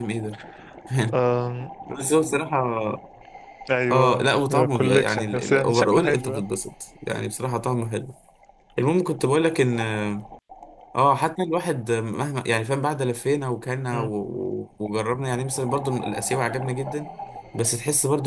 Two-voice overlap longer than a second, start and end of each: 3.9-6.4

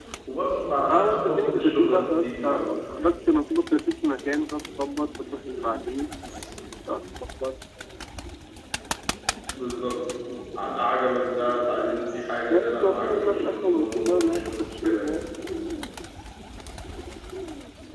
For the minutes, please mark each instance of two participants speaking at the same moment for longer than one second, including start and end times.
0.9-2.7, 12.5-15.1

